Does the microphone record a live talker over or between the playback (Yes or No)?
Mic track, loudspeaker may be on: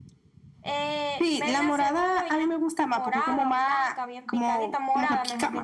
No